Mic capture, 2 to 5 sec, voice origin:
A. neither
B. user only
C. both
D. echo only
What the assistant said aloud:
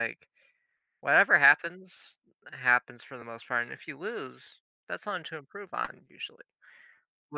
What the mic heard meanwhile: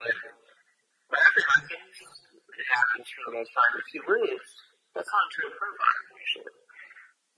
D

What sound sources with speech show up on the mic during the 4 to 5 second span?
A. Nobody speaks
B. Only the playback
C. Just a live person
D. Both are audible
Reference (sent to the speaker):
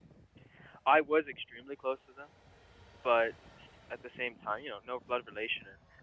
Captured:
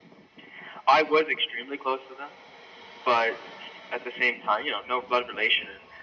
B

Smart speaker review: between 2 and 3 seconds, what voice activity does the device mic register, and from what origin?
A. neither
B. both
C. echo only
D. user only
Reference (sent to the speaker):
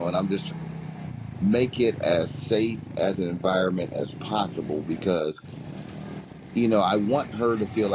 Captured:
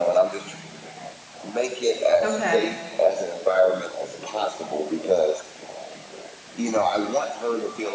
B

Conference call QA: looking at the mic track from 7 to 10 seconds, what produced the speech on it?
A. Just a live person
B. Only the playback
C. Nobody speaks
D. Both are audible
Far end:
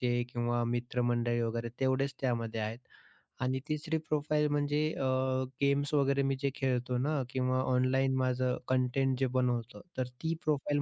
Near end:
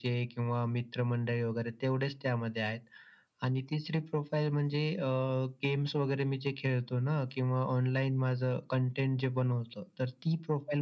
B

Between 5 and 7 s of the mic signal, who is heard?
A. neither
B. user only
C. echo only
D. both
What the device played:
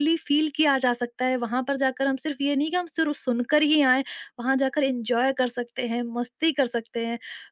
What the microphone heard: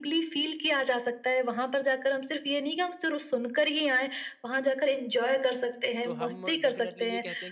D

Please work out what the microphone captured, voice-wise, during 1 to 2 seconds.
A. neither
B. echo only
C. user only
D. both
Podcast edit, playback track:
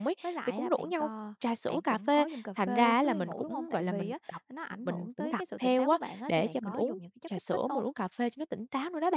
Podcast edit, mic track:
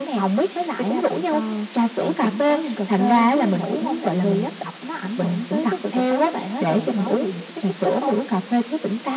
B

